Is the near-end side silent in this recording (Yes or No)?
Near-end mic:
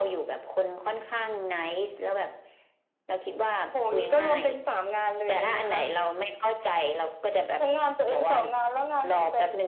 Yes